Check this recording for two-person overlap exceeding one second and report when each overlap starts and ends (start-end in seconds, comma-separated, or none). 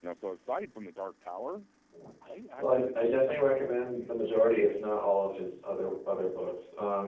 2.6-4.1